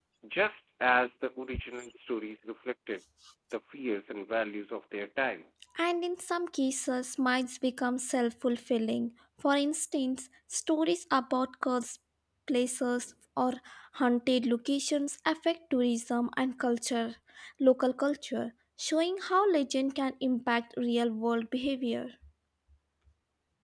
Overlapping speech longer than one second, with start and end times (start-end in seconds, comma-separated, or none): none